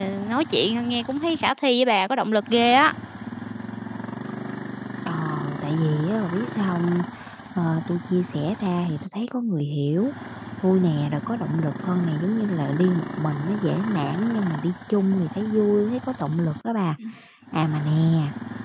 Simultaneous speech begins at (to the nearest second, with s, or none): none